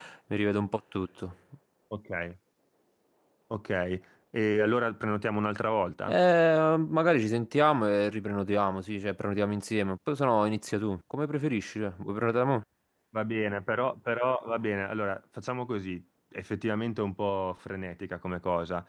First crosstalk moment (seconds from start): none

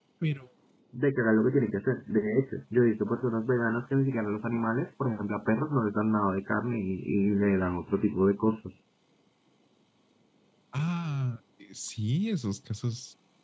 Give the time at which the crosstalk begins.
none

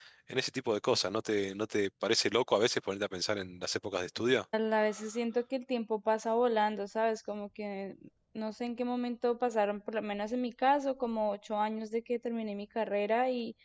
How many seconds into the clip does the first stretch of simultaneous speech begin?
none

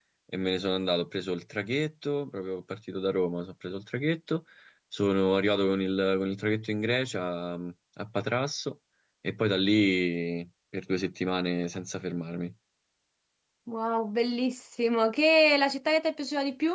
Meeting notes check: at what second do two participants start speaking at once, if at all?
none

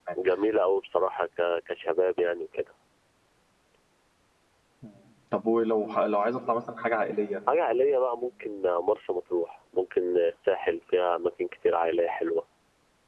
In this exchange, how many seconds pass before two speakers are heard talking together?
none

